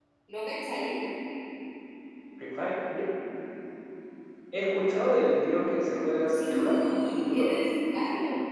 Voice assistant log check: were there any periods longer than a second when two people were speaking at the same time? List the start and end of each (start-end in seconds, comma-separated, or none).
6.3-7.6